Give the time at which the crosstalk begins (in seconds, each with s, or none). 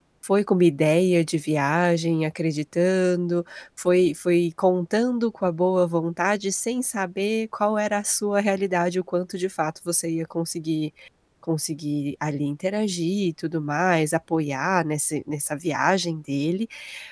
none